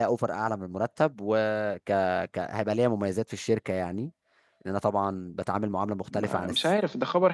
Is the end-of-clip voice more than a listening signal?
Yes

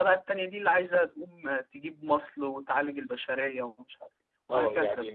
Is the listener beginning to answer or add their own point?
Yes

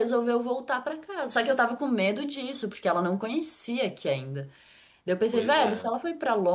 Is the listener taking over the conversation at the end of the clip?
No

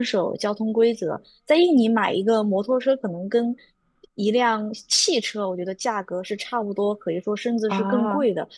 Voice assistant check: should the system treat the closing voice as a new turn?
No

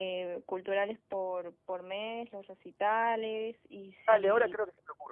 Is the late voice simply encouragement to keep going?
No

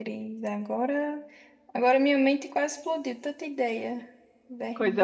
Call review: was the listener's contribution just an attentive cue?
No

